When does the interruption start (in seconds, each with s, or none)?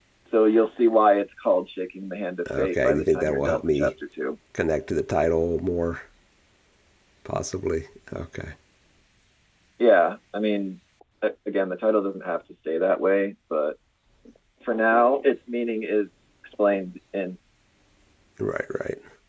2.5 s